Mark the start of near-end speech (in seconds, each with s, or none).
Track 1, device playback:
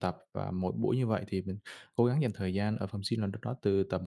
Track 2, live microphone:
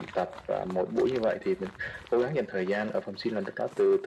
none